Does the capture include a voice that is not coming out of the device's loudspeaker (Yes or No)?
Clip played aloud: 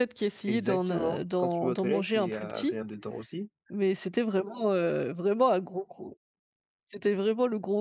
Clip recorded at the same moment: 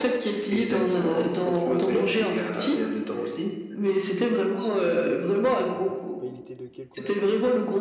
Yes